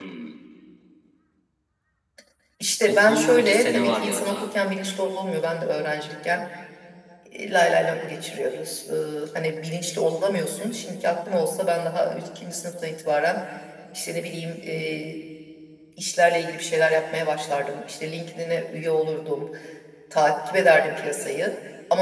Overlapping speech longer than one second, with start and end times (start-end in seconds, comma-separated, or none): 2.9-4.5